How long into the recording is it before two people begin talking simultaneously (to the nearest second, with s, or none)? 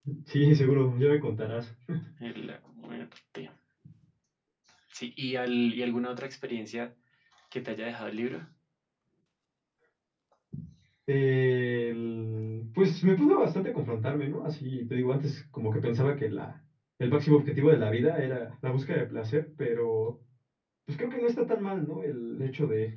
none